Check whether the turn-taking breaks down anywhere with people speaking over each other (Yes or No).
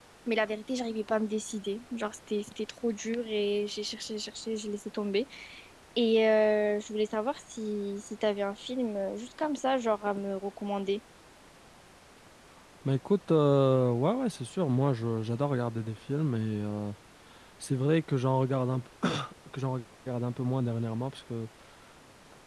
No